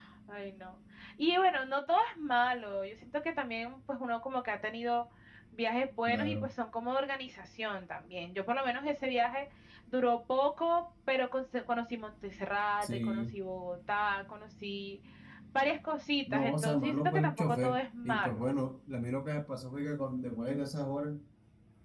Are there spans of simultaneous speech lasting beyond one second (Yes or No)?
Yes